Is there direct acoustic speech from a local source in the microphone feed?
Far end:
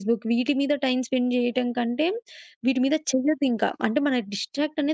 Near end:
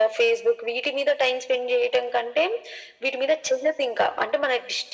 No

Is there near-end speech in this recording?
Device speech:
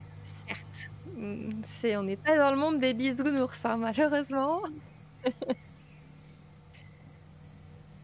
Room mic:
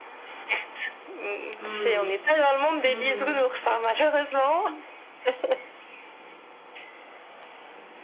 Yes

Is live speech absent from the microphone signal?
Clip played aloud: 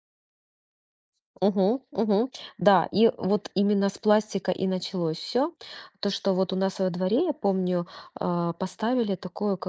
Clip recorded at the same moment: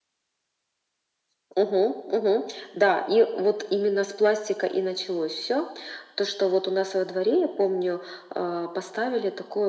Yes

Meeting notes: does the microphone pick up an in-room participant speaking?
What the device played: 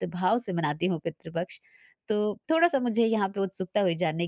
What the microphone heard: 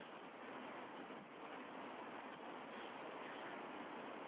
No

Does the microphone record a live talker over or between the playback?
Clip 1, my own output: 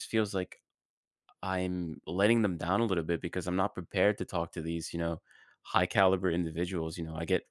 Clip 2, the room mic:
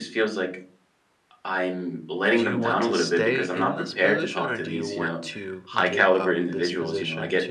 Yes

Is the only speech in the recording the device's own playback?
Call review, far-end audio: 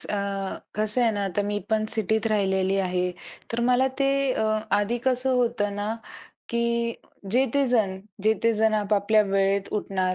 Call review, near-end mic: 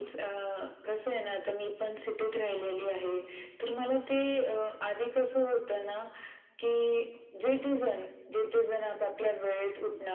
Yes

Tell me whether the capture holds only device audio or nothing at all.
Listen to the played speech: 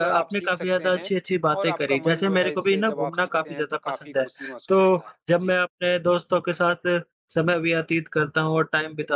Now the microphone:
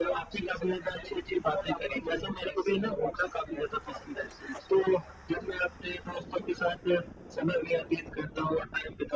Yes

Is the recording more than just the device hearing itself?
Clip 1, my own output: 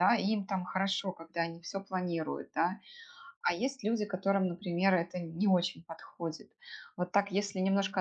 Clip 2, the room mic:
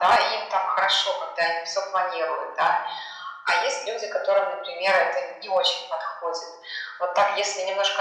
No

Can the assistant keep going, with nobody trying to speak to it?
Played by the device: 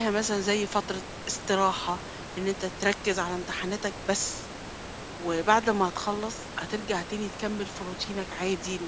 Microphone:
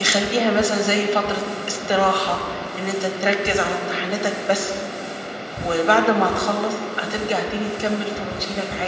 Yes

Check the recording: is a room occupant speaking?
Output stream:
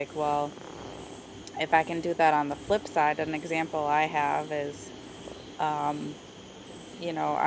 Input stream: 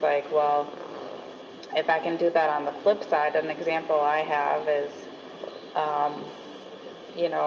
No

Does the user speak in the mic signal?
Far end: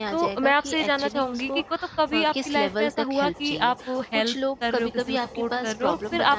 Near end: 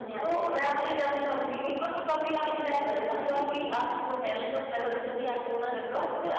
No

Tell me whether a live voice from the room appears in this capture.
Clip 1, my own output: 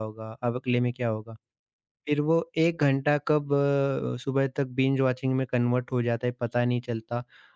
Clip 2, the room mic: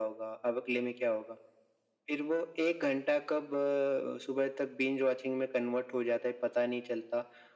No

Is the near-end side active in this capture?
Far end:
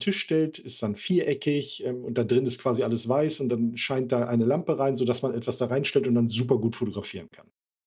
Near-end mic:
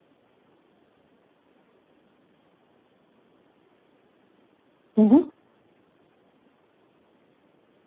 Yes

